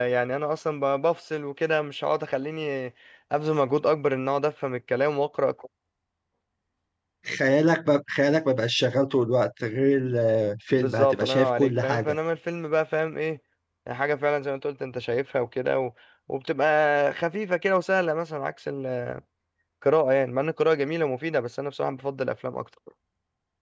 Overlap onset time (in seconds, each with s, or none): 10.8 s